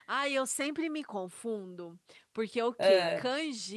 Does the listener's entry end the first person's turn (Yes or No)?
No